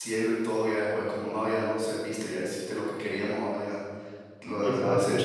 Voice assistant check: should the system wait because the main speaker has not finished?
No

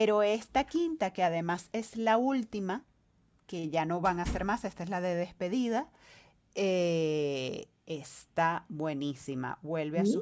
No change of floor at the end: Yes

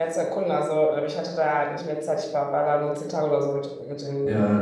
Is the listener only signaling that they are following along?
No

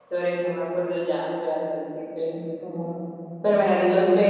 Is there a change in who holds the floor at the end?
No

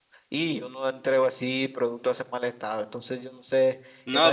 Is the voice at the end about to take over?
Yes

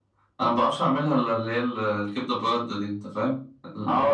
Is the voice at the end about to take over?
Yes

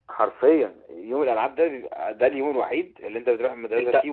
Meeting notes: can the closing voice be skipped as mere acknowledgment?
No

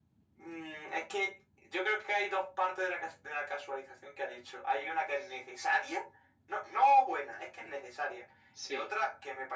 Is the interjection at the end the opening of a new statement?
No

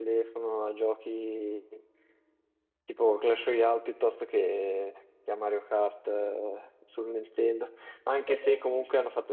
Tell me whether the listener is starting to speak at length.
No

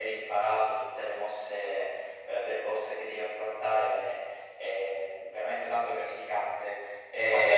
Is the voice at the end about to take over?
Yes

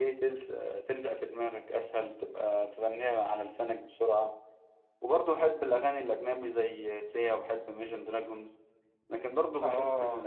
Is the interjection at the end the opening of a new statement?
No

